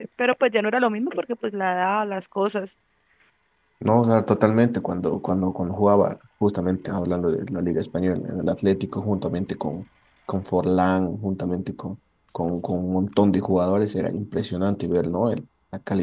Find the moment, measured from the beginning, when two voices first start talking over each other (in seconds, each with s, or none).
none